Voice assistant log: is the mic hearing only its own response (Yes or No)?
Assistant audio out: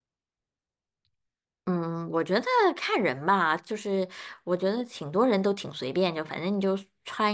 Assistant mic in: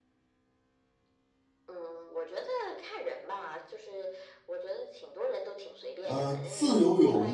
No